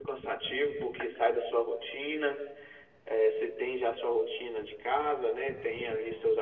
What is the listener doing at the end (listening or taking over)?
listening